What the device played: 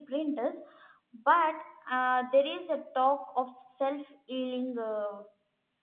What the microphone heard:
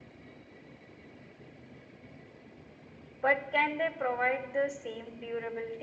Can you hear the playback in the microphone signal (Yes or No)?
No